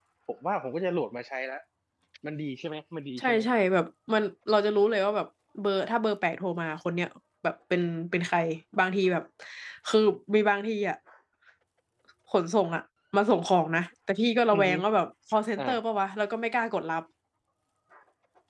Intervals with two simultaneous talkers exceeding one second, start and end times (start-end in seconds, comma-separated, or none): none